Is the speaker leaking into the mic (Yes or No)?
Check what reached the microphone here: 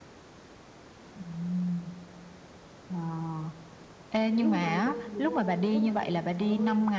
Yes